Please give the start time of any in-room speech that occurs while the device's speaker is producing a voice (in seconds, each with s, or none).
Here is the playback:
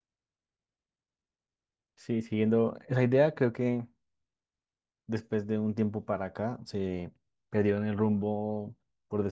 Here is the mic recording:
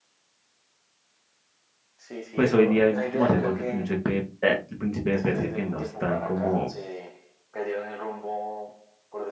2.3 s